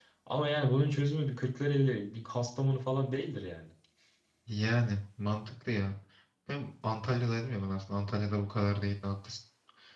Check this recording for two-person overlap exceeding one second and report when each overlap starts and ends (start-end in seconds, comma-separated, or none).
none